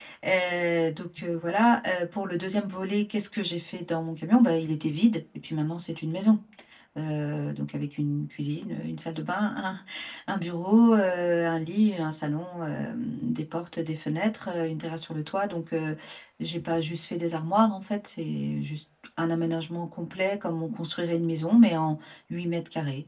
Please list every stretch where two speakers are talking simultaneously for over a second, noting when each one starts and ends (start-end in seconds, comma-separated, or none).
none